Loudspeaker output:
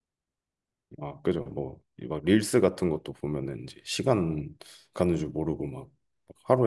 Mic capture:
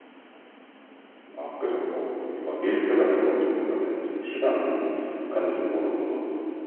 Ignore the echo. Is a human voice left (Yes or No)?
No